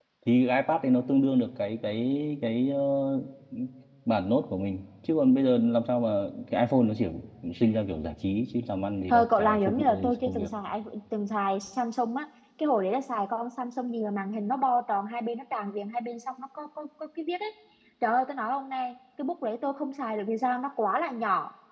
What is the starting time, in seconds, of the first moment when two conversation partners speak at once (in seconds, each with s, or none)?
9.1 s